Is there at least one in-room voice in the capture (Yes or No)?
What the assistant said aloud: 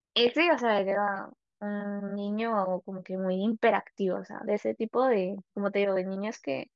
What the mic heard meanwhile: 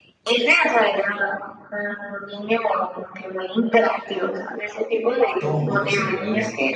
Yes